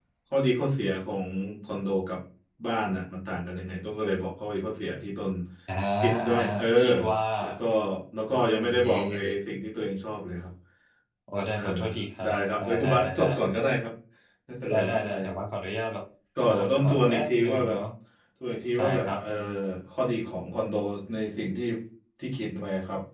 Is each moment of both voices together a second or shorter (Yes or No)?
No